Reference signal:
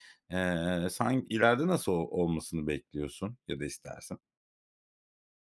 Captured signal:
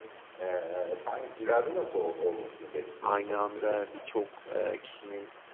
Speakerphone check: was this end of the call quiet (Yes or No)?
No